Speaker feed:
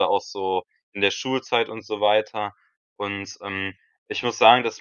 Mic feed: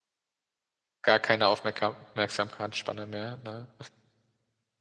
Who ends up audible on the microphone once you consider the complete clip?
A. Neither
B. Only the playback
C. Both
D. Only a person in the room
D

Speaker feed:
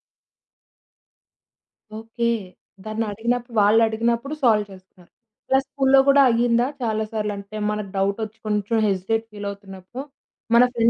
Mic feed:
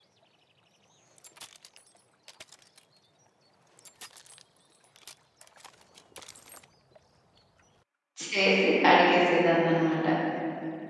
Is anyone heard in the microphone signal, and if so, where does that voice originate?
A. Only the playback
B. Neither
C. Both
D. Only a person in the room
D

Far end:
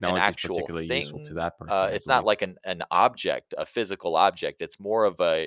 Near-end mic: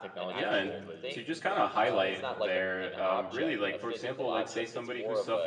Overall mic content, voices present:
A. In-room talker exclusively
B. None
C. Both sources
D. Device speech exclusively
C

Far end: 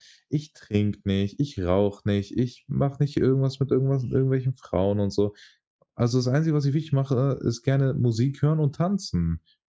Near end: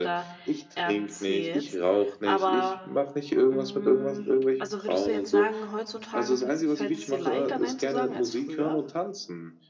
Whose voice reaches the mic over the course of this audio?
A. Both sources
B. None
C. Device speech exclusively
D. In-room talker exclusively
A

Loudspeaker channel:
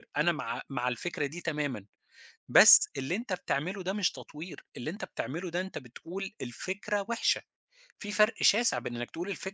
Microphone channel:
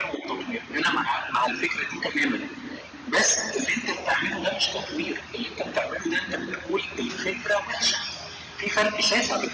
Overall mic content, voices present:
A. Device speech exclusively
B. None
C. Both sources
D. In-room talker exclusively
A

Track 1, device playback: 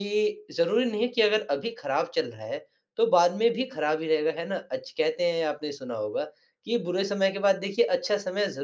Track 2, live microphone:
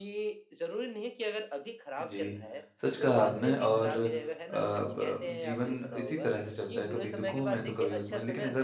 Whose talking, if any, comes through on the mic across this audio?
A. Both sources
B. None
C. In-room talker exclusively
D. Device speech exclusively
A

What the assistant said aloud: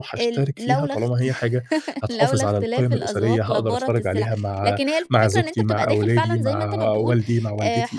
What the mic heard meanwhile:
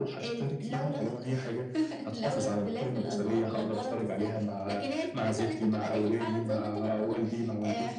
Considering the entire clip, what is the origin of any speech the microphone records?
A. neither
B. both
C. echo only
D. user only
C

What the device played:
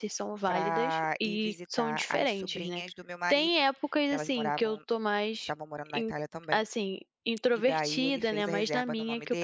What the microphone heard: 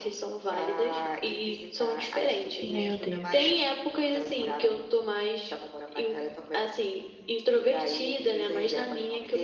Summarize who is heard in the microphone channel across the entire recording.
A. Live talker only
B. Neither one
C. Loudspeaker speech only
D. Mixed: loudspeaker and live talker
D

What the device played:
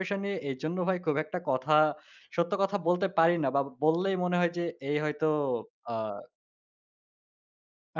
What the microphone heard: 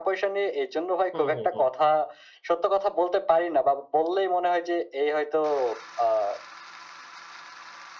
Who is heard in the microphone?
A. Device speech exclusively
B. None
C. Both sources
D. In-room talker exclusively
C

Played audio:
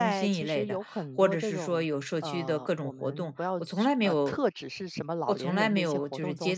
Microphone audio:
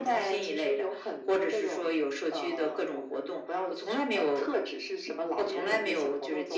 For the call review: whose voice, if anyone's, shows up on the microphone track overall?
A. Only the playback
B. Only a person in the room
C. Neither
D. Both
A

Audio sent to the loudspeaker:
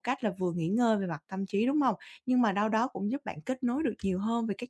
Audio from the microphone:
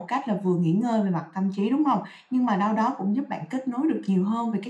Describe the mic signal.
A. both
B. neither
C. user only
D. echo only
D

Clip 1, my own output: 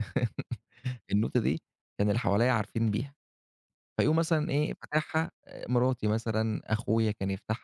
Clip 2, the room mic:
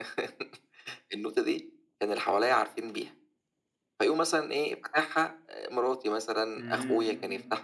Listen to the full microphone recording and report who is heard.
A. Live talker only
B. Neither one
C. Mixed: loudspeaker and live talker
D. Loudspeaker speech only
C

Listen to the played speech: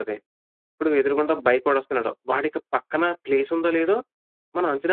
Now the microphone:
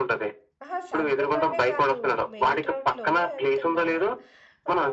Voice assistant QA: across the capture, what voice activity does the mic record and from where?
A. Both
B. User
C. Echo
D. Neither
A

